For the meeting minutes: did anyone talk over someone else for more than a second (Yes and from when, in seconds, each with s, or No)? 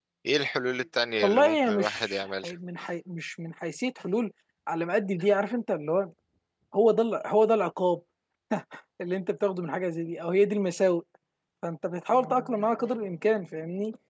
Yes, from 1.2 s